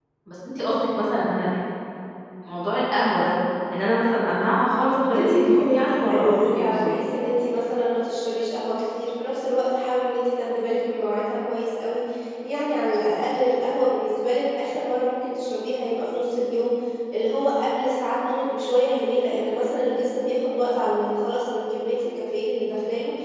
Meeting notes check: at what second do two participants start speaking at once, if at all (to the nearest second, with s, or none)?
5 s